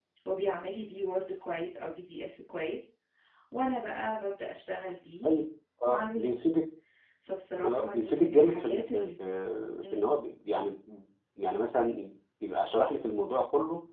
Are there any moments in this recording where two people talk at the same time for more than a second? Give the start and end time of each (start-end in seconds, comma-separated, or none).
7.6-9.1